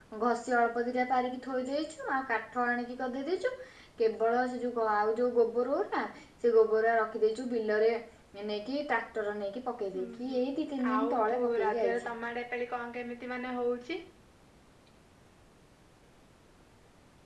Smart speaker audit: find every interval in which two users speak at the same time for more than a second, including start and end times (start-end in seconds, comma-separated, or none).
10.9-12.1